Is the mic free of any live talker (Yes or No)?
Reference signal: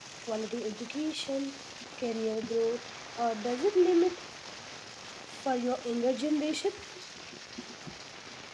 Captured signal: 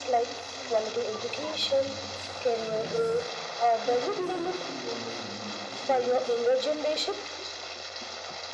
No